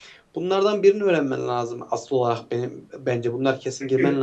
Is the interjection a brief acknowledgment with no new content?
Yes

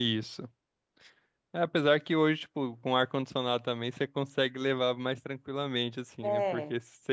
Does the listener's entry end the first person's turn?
No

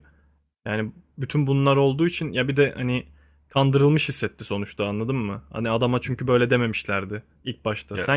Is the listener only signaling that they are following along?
Yes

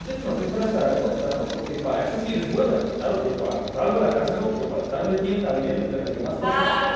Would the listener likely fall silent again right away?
No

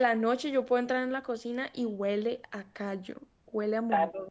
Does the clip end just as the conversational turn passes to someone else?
Yes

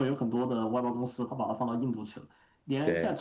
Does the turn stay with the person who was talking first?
Yes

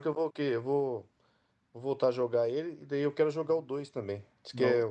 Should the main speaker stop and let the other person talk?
No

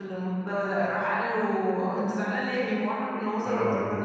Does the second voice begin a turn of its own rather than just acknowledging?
Yes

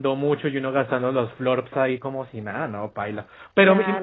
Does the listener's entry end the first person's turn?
No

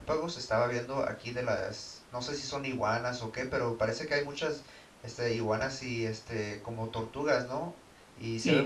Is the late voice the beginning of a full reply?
Yes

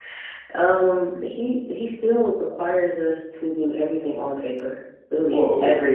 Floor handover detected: Yes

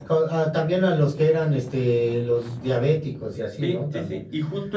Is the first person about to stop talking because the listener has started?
Yes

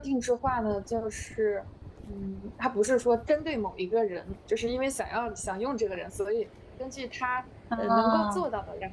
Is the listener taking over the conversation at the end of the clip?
No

